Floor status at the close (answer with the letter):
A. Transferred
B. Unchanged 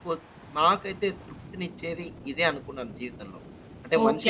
A